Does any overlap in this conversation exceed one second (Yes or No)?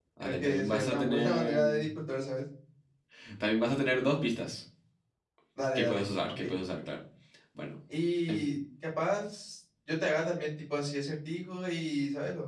Yes